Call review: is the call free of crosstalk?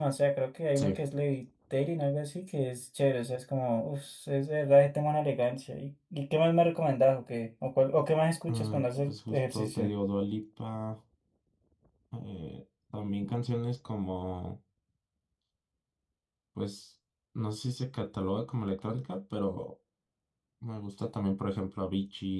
No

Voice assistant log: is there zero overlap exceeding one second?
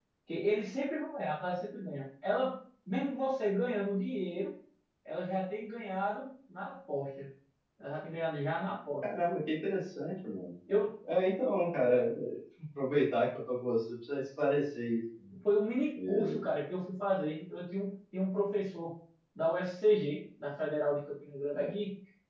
Yes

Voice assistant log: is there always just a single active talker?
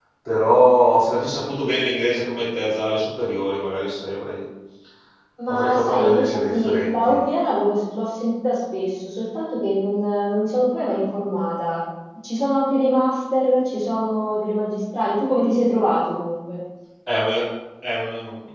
No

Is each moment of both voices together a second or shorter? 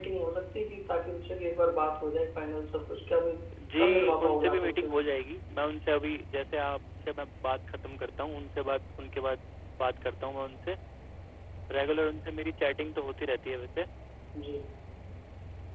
No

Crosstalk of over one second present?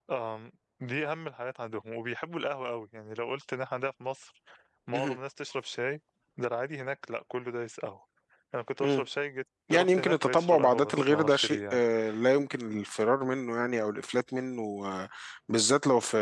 Yes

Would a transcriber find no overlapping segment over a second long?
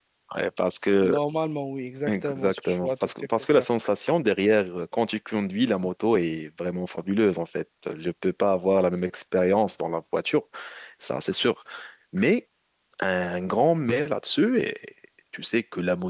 No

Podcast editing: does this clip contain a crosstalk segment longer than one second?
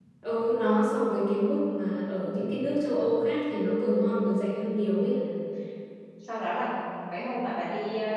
No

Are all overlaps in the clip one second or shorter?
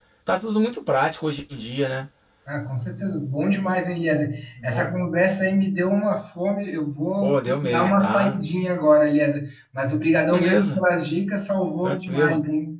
No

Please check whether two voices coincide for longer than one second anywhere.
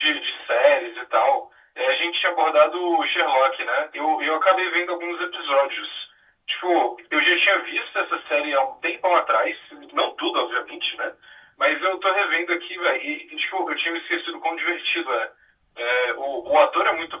No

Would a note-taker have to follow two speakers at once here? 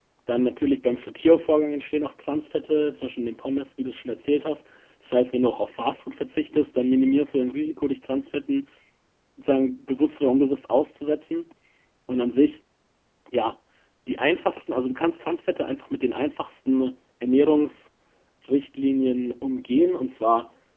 No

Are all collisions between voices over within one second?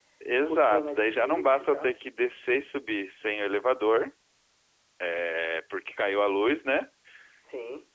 No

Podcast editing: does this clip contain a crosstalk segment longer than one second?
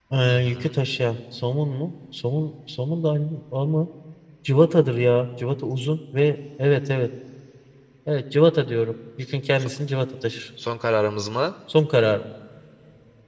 No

